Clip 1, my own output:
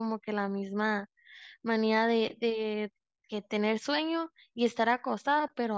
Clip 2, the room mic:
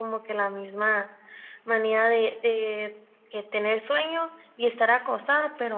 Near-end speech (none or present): none